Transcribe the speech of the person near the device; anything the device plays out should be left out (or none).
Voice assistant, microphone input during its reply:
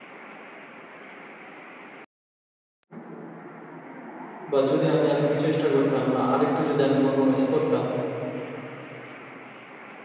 বা যদি আমি আরেকটু চেষ্টা করতাম বা আরেকটু যদি আমি compromise করতাম,